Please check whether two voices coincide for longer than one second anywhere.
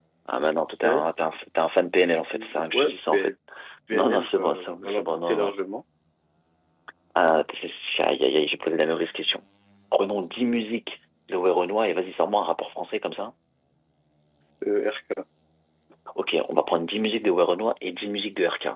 Yes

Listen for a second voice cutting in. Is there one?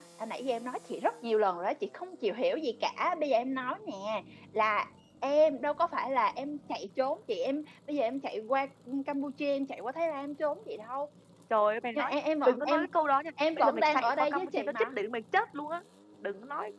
Yes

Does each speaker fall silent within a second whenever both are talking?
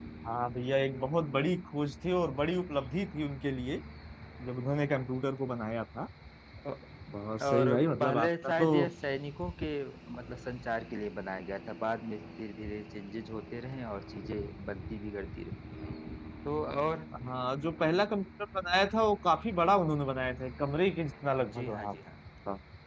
No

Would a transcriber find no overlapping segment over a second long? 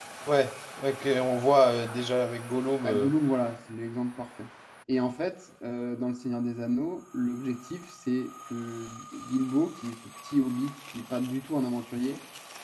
Yes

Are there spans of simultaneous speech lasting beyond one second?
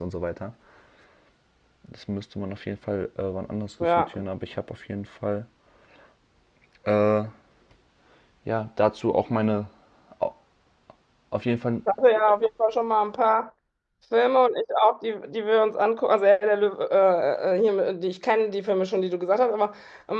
No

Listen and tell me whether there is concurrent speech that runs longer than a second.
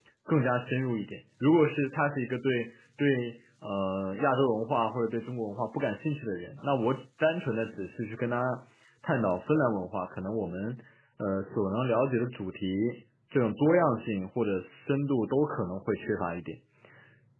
No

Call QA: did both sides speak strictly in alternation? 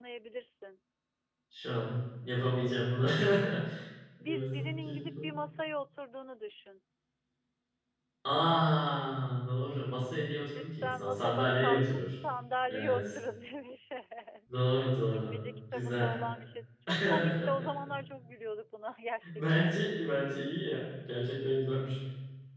No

